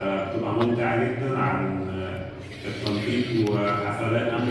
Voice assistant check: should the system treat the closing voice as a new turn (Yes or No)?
No